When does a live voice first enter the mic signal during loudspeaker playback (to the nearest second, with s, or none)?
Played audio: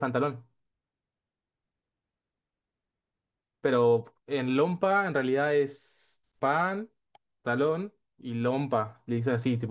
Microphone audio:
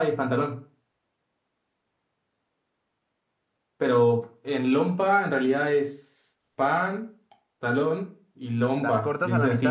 9 s